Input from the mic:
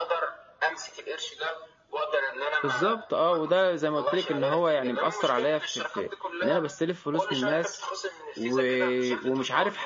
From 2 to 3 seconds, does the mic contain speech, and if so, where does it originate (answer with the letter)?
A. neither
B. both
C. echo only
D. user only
B